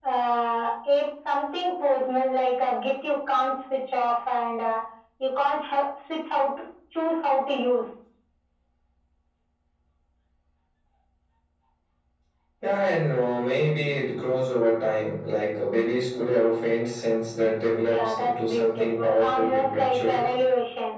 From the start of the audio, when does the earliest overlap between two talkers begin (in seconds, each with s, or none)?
17.8 s